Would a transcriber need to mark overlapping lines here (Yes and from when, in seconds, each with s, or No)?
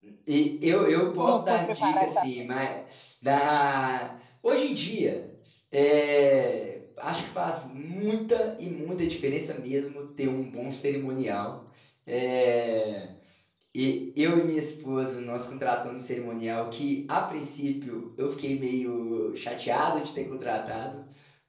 Yes, from 1.0 s